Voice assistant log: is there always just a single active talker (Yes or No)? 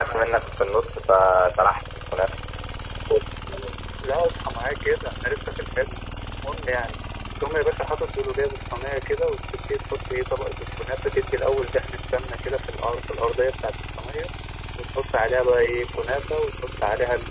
Yes